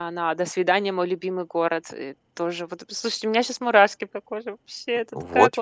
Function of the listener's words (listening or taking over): taking over